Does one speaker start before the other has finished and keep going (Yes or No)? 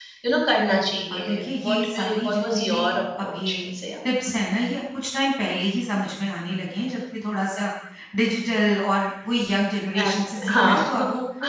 Yes